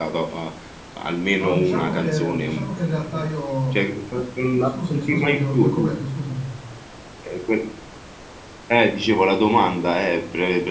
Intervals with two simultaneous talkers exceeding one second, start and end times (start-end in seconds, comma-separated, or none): 1.4-3.3, 4.6-5.9